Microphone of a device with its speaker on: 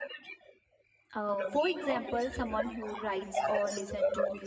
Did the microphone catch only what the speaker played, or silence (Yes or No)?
No